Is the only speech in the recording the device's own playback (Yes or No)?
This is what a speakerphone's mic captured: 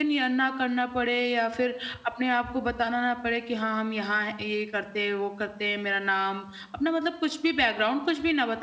No